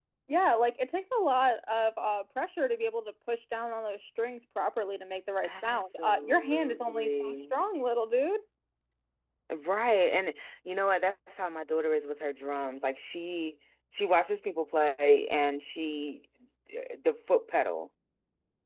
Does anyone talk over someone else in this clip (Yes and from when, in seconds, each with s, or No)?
Yes, from 5.4 s